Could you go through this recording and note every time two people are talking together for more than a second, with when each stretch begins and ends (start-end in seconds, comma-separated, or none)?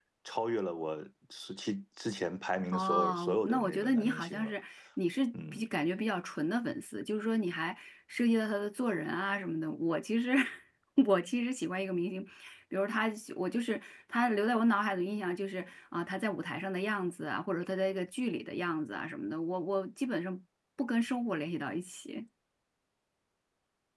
2.7-4.5